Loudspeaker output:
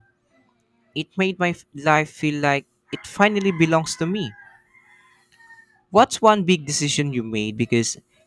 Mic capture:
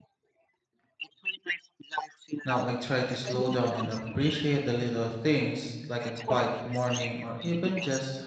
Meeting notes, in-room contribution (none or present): present